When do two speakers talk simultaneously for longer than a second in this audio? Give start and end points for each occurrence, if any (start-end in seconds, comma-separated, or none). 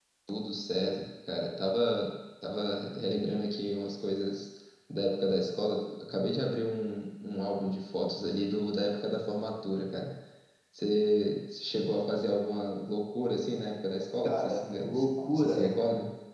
14.2-15.8